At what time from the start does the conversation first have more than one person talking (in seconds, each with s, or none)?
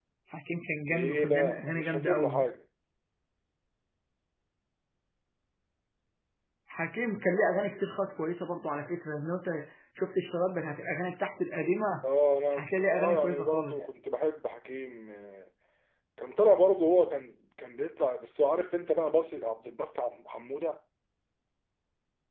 0.9 s